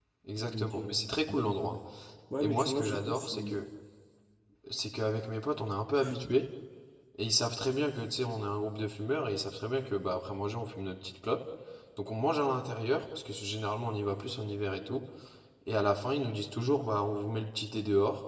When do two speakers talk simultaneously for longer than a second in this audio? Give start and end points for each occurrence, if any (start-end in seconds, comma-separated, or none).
2.4-3.6